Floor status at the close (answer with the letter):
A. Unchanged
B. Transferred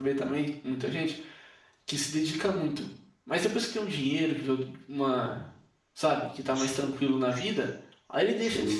A